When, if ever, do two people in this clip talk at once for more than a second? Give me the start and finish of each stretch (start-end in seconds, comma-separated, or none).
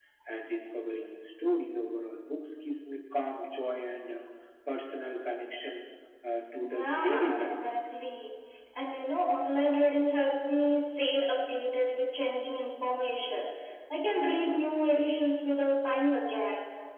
6.6-7.8